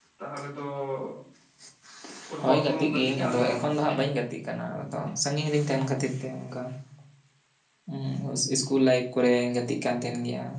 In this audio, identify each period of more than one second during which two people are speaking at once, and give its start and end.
2.4-3.6

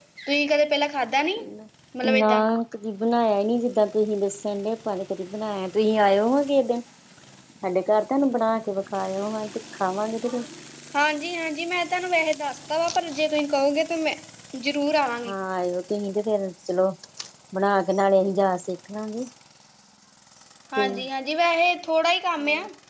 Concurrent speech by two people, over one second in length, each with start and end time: none

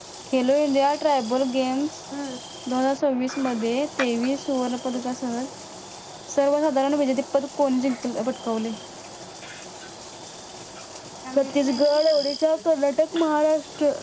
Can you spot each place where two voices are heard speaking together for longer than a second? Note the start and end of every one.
11.4-12.6

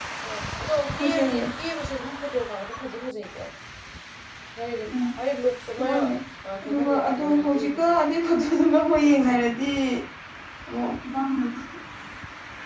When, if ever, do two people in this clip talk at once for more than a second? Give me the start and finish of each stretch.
6.6-8.0

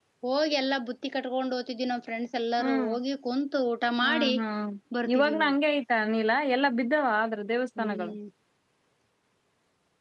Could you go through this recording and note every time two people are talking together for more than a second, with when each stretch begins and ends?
none

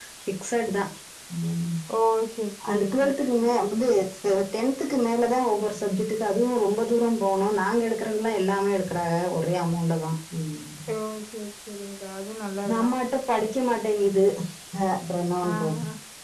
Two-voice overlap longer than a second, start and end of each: none

